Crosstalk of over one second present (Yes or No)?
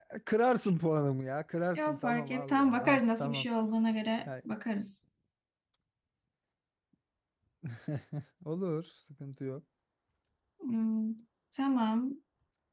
Yes